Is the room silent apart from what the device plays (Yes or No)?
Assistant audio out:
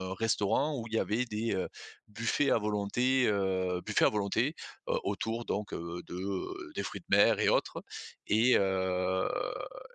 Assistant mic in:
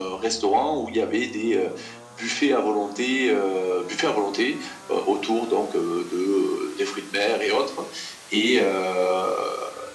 Yes